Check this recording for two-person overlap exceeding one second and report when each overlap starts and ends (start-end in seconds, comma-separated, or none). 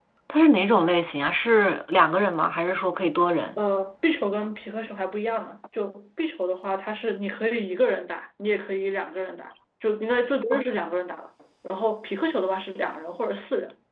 none